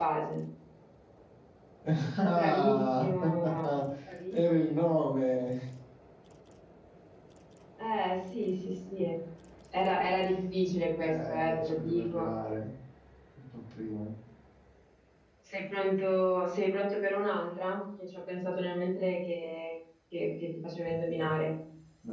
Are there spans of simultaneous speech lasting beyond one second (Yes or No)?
Yes